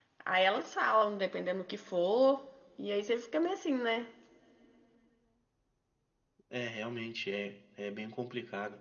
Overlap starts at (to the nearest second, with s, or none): none